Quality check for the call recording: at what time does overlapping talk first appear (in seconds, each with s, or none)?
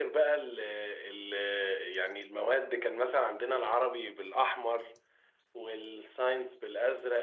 none